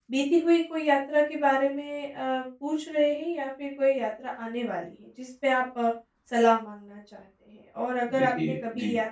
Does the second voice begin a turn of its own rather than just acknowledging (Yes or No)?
No